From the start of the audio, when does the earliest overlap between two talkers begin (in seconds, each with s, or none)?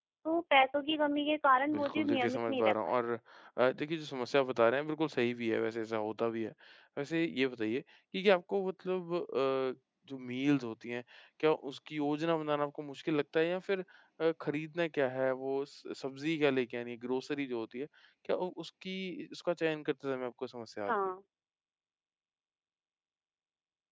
1.7 s